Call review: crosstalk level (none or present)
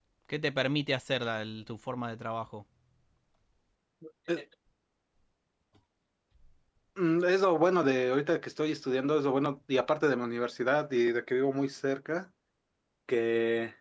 none